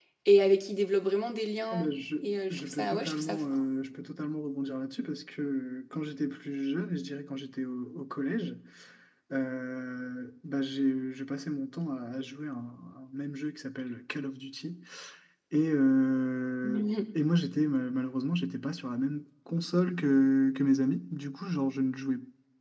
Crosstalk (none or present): present